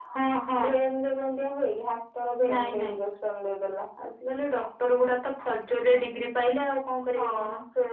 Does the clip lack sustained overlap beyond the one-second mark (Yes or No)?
Yes